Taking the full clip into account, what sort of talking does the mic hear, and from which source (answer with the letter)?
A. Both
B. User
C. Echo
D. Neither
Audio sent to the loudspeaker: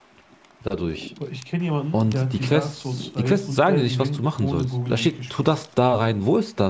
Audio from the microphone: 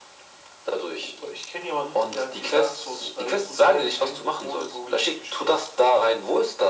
C